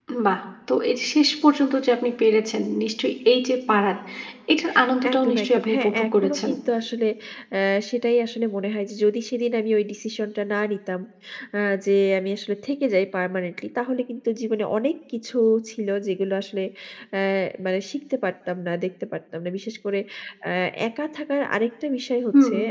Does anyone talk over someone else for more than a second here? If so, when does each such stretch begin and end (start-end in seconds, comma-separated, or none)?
5.1-6.5